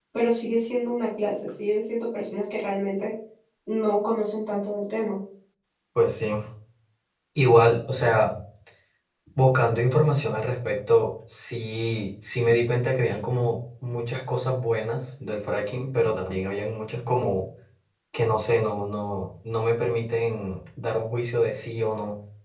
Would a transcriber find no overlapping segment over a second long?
Yes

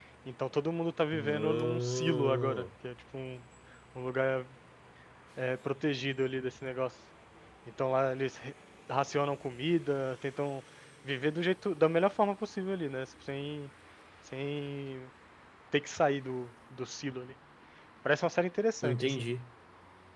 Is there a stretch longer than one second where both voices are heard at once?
Yes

